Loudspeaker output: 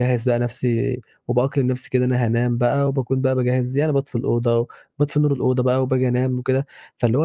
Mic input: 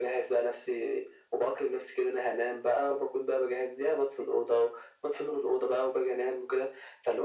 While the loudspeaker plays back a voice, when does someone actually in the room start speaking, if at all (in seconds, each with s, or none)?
none